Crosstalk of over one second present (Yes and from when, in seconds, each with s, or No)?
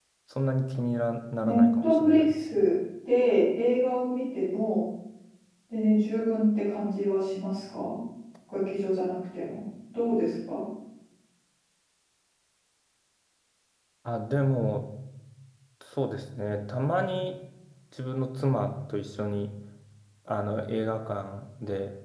Yes, from 1.4 s